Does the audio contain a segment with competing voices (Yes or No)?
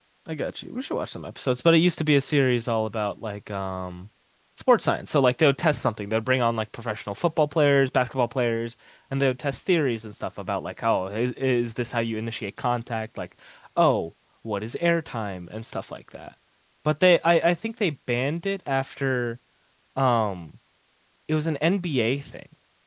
No